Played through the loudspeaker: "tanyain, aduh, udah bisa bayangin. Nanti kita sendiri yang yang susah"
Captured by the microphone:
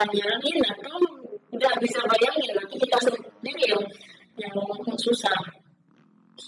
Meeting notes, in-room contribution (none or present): none